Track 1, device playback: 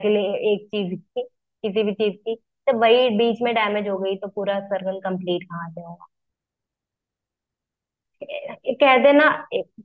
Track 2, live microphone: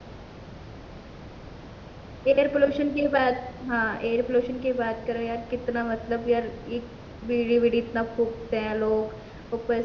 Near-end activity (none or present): present